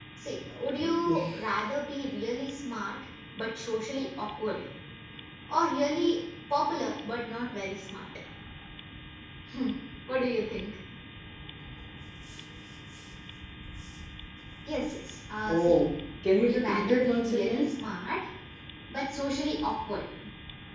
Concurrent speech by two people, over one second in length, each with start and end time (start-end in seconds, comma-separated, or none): 16.4-17.7